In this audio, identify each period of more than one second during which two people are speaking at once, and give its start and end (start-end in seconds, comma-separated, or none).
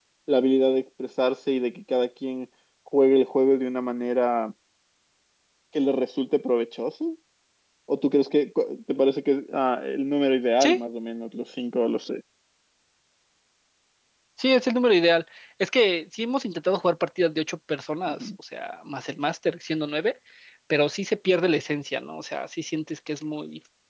none